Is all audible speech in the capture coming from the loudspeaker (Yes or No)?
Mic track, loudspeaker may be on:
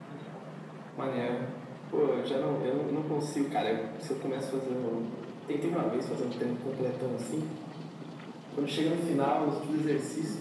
Yes